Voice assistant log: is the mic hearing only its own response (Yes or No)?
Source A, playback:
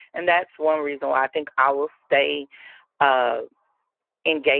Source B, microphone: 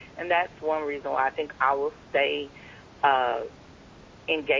Yes